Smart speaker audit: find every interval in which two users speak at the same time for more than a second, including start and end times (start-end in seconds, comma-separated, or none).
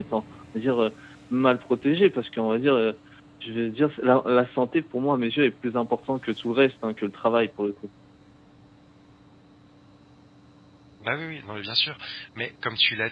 none